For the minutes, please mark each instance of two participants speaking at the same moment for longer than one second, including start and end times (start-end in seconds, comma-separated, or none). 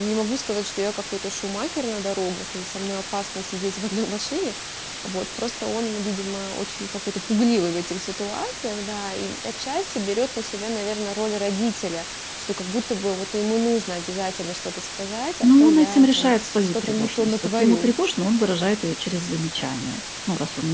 15.4-17.9